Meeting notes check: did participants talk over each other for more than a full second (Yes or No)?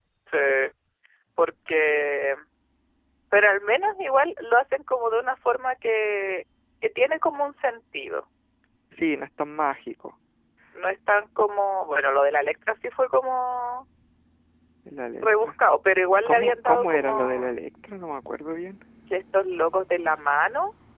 Yes